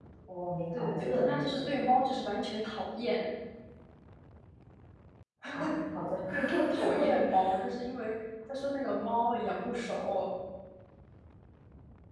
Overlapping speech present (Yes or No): Yes